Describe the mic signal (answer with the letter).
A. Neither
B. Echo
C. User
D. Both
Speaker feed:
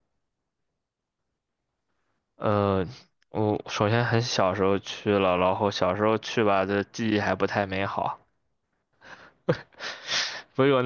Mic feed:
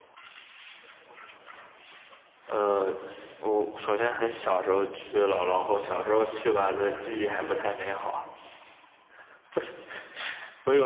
B